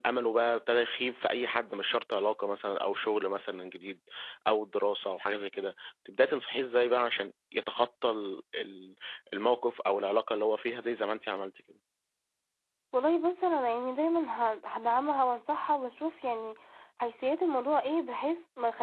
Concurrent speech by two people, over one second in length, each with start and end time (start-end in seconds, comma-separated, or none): none